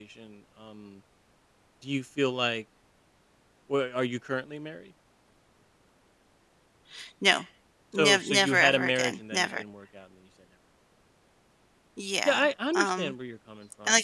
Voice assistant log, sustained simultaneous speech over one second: present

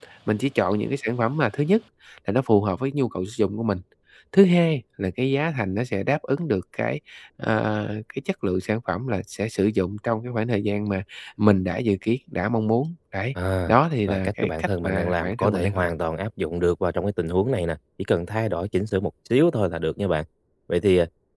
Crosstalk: present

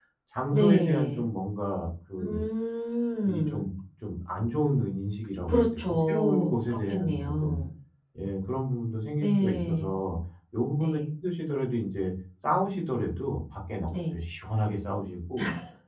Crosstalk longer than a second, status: present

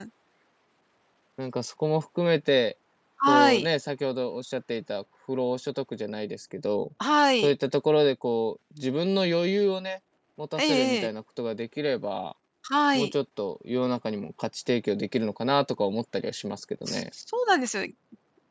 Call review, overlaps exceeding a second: none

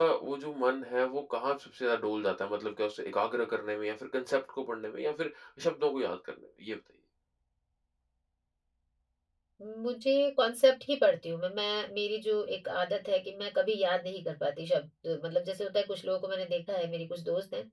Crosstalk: none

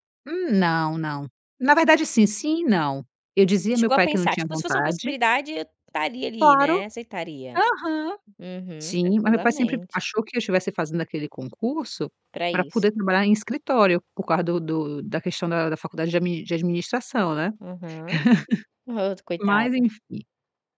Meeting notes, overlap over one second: present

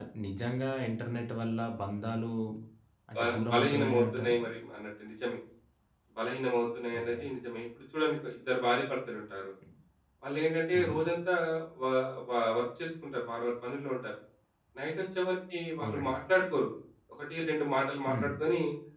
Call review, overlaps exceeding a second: present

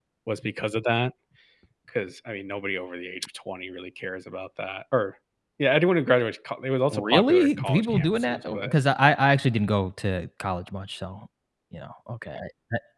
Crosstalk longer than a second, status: present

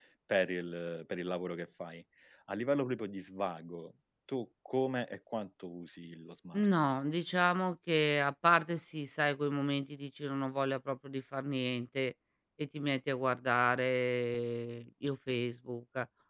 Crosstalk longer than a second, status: none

